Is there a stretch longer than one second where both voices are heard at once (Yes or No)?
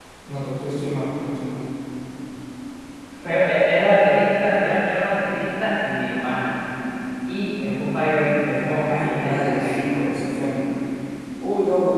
Yes